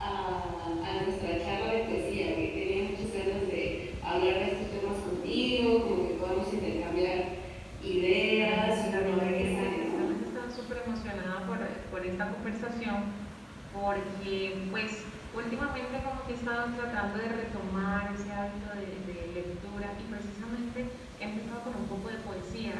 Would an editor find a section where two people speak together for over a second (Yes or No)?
Yes